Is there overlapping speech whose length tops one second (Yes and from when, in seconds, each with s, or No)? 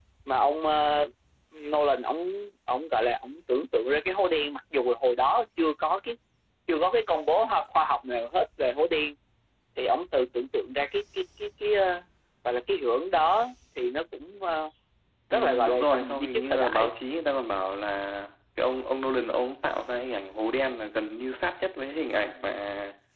Yes, from 15.3 s